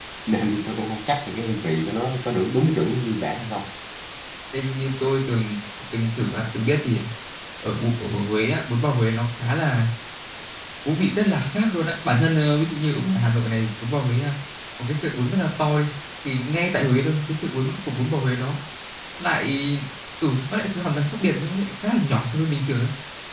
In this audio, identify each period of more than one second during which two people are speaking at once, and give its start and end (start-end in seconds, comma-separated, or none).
none